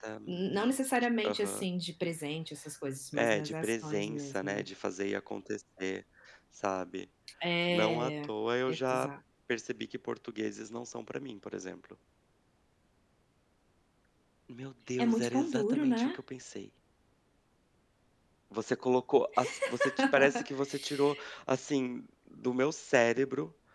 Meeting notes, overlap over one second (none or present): present